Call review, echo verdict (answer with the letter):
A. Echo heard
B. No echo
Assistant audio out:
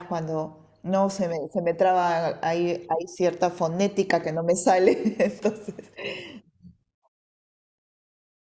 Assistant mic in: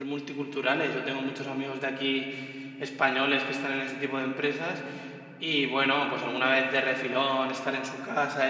B